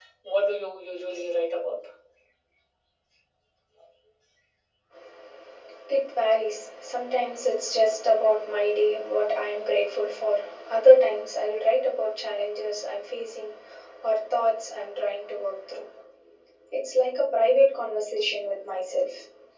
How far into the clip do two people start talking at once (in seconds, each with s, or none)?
none